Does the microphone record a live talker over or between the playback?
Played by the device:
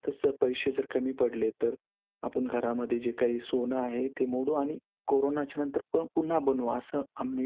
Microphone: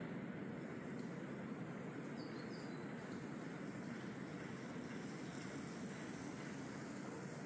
No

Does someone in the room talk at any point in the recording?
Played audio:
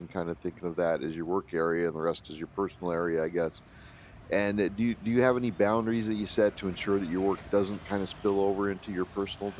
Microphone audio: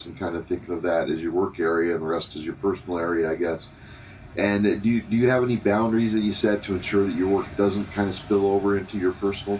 No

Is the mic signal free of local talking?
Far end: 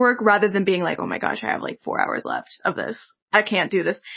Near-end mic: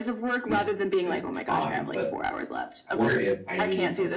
No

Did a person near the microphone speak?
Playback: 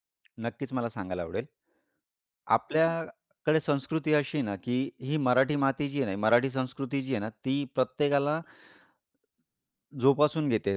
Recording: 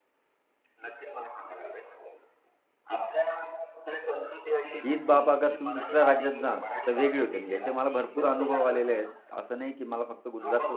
Yes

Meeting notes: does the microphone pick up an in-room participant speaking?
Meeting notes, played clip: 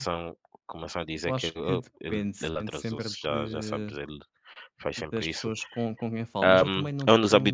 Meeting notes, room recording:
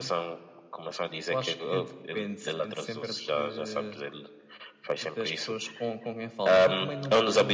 No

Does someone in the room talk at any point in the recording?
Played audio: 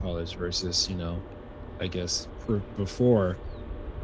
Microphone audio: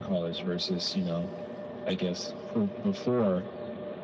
No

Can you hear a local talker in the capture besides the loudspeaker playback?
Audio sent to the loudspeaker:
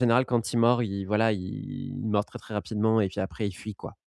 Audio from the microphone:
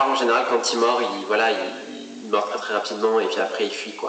No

